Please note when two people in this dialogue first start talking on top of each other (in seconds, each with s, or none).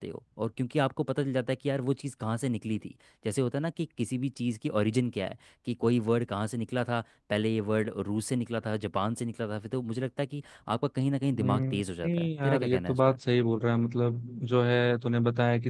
11.3 s